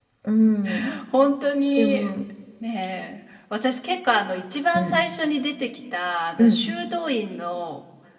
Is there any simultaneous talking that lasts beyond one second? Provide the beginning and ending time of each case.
none

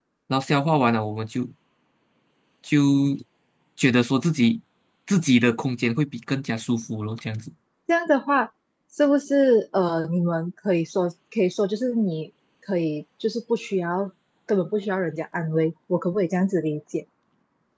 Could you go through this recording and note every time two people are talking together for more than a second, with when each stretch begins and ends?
none

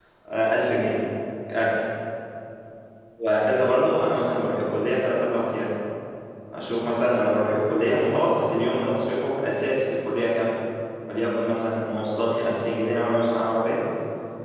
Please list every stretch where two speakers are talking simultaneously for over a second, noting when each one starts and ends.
none

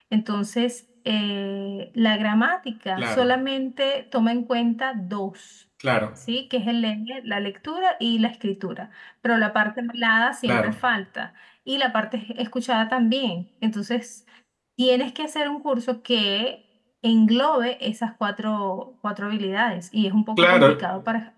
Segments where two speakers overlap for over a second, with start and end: none

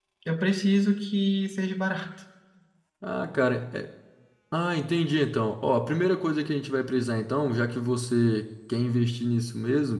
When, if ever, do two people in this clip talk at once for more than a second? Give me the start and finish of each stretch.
none

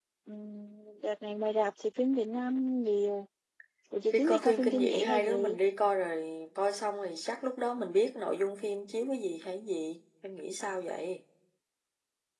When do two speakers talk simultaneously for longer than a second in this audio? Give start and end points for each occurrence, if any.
4.1-5.6

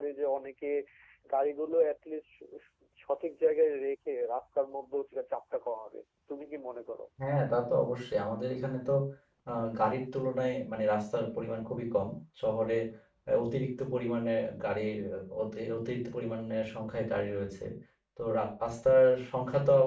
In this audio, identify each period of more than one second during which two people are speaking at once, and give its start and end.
none

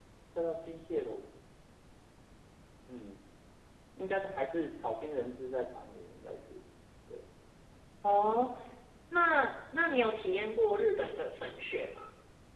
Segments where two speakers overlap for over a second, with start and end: none

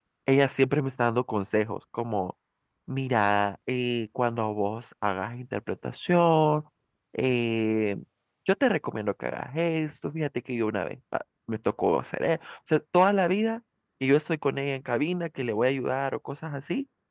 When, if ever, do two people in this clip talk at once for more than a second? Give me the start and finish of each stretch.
none

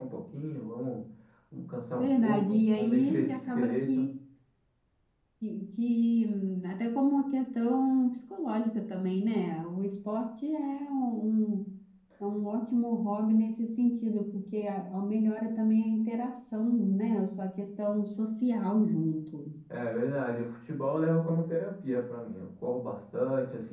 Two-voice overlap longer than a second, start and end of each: 2.0-4.1

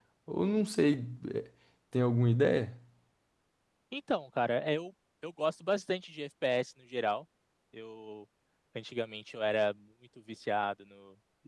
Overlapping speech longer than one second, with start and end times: none

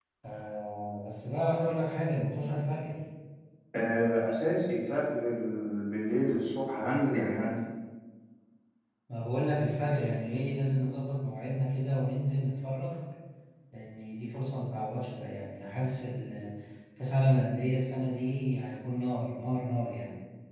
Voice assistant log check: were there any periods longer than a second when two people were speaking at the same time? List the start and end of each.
none

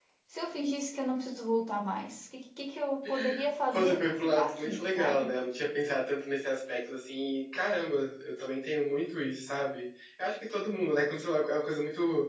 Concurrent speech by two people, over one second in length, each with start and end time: 3.7-5.3

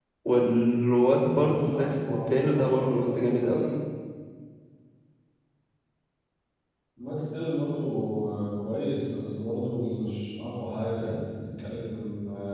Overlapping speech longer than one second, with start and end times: 1.3-3.7

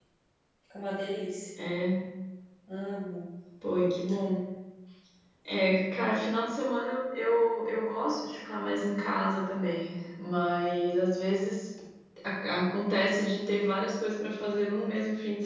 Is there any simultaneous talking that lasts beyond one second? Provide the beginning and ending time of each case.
none

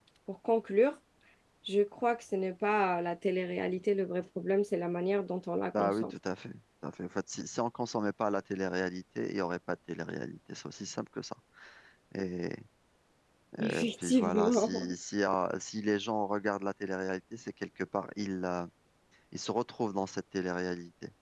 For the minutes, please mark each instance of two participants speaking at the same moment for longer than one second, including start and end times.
13.6-14.9

